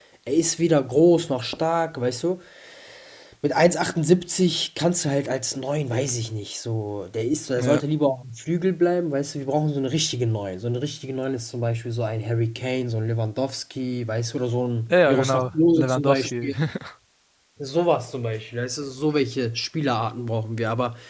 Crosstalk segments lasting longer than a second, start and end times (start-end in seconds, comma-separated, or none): 14.9-16.5